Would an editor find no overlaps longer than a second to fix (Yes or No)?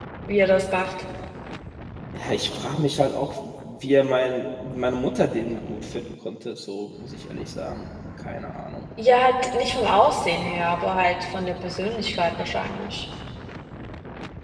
Yes